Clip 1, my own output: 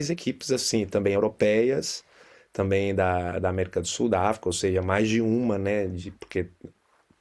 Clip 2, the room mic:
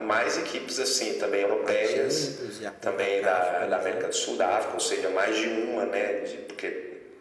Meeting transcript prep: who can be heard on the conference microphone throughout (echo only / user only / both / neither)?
both